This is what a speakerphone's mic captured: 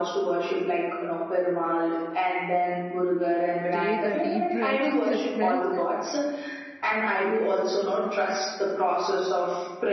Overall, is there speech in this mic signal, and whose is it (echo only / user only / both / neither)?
both